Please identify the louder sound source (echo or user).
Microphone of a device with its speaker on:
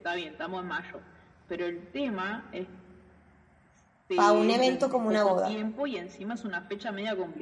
user